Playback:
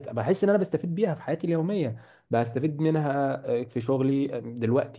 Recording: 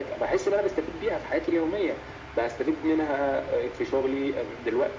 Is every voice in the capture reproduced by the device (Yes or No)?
Yes